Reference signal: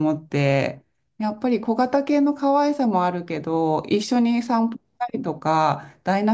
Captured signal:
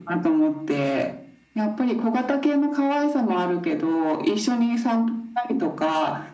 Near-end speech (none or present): none